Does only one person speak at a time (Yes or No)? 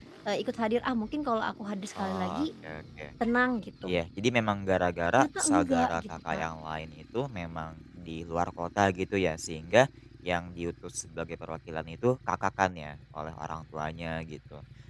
No